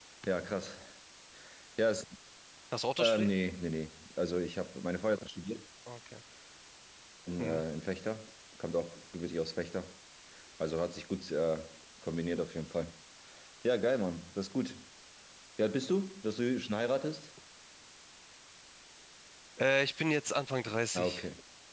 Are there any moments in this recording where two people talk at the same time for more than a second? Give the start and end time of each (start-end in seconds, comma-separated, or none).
none